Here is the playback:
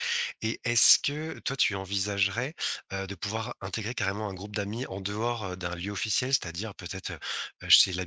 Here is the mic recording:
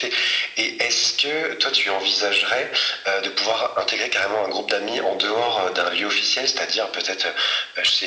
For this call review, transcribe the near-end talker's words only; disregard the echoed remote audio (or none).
none